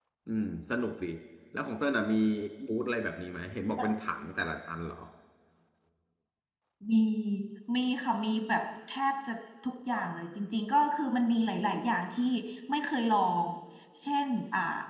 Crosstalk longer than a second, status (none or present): none